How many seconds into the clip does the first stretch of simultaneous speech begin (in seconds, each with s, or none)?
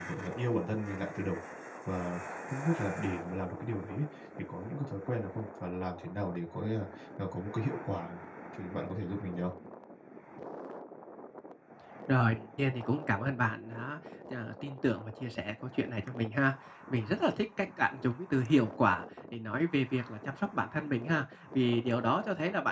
none